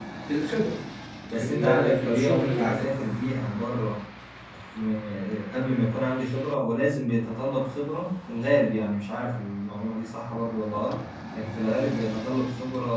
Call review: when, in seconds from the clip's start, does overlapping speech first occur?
1.4 s

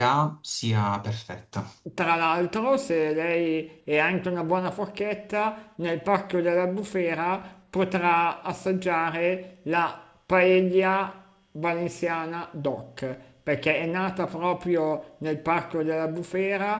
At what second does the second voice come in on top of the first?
none

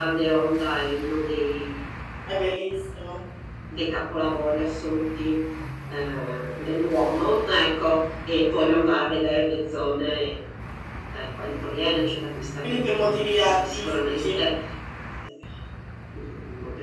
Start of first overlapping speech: 12.6 s

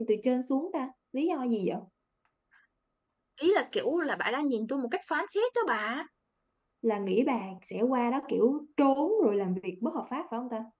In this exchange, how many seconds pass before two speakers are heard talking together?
none

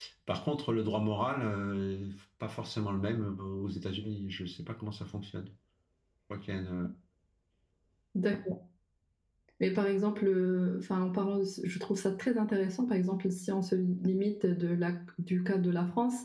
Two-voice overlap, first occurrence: none

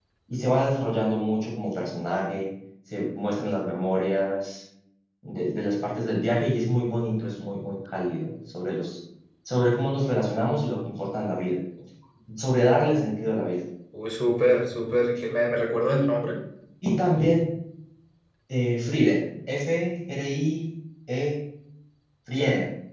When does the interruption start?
none

